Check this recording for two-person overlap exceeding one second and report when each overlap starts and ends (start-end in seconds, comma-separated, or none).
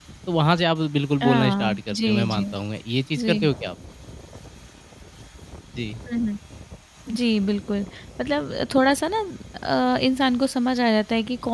1.2-2.4